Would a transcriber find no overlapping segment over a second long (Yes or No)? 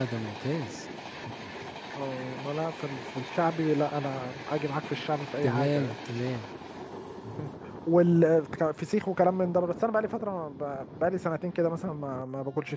Yes